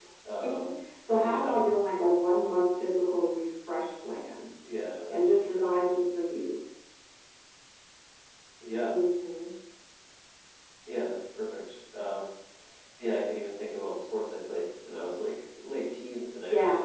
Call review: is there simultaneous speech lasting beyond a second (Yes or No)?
No